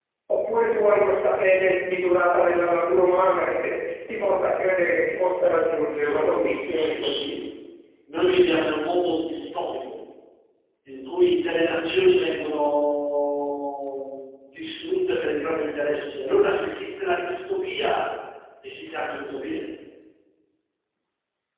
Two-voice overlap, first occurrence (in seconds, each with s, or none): 6.0 s